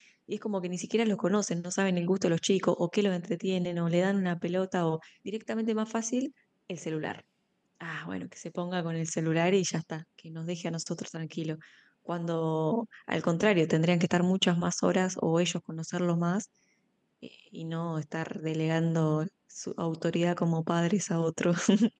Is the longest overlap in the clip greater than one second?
No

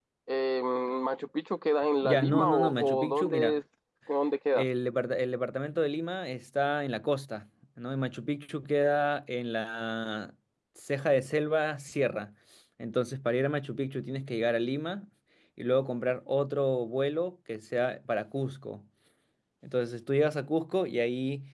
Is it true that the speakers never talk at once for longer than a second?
No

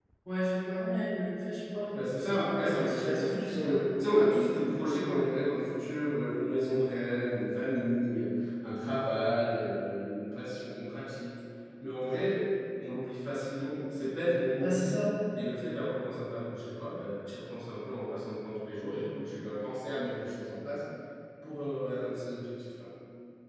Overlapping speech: Yes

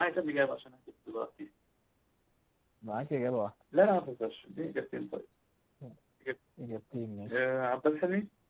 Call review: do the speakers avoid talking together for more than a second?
Yes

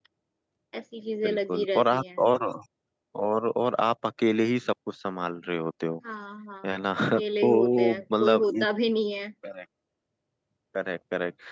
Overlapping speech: Yes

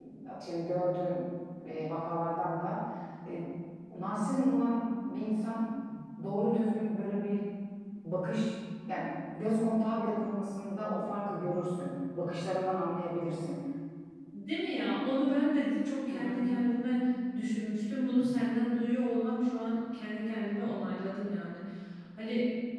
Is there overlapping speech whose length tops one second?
No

